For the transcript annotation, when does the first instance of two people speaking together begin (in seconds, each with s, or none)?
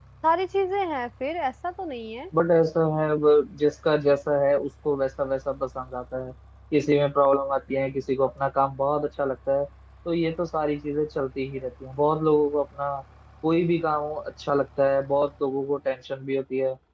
none